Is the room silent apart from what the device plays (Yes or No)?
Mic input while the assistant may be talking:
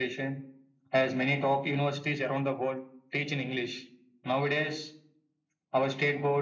Yes